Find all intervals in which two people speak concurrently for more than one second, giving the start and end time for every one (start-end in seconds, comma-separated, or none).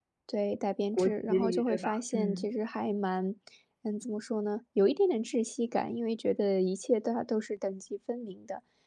0.9-2.5